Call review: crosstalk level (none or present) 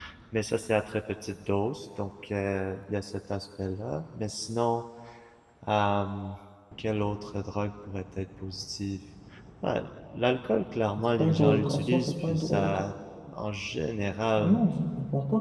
present